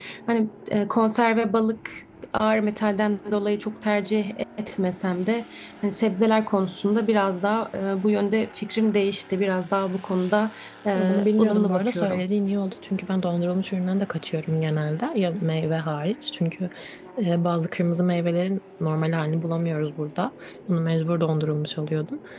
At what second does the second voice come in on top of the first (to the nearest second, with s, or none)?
11 s